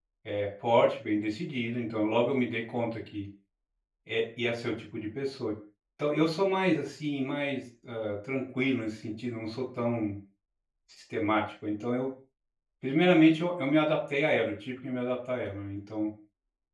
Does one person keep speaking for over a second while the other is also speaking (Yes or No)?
No